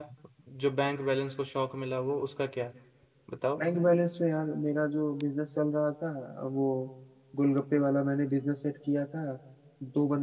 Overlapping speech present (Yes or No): No